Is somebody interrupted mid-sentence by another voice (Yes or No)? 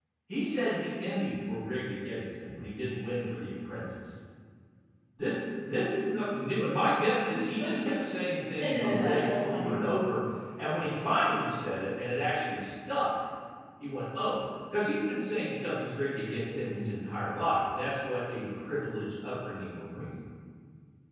Yes